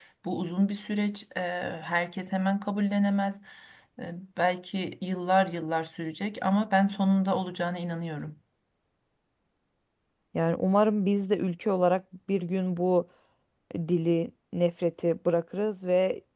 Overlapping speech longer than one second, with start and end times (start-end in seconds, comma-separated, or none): none